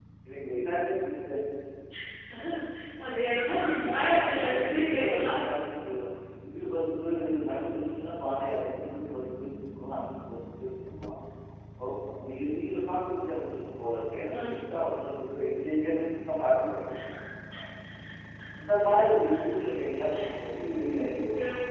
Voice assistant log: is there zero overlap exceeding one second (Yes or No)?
No